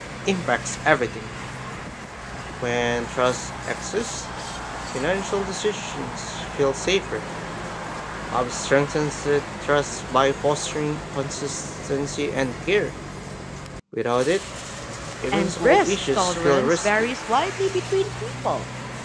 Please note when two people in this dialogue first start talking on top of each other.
15.3 s

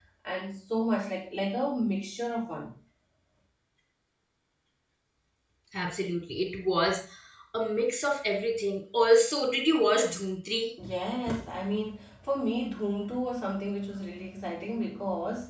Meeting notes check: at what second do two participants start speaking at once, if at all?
none

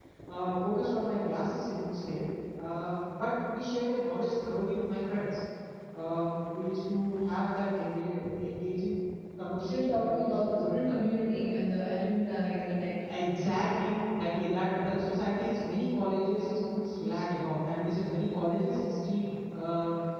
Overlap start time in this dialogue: 9.6 s

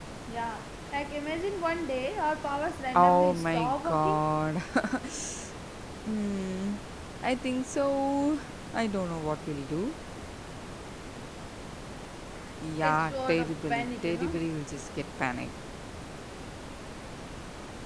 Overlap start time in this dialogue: 2.9 s

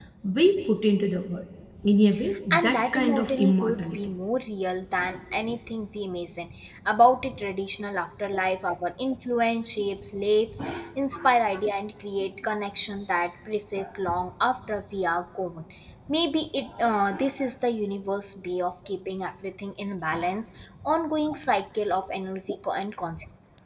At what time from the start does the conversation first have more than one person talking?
2.5 s

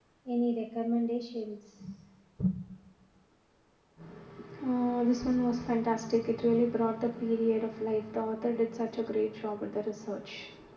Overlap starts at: none

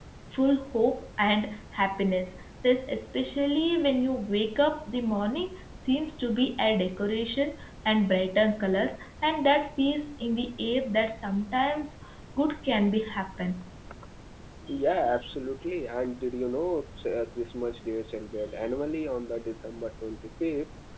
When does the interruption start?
none

